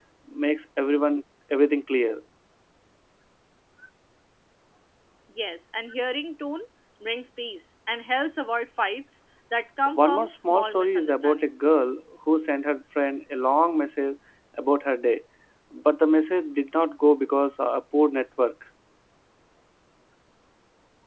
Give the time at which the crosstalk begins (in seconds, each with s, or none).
9.9 s